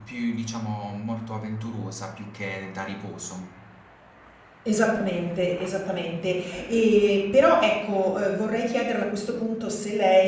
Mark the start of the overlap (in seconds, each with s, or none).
none